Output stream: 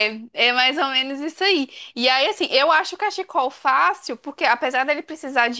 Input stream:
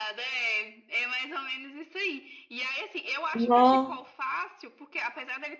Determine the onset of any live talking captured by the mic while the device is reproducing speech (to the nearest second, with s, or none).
3 s